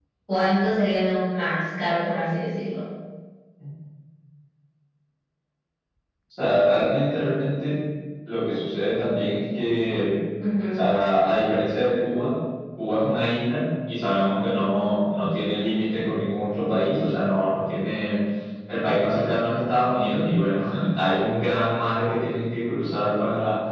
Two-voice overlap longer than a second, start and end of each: none

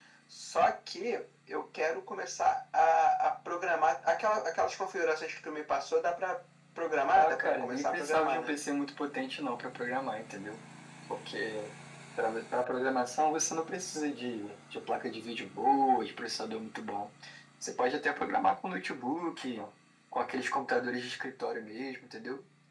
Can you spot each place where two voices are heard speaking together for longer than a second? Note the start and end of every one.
7.1-8.5

